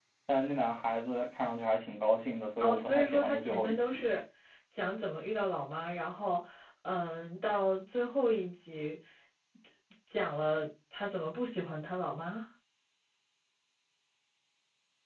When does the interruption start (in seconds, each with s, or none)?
2.6 s